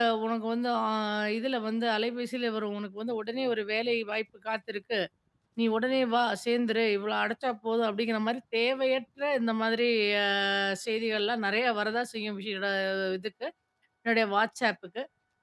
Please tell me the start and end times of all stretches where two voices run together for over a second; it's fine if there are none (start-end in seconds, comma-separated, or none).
none